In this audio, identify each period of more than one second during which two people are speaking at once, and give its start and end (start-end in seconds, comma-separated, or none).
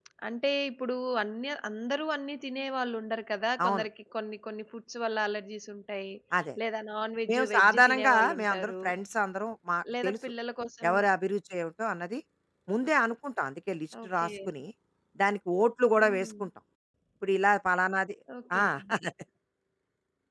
7.3-8.8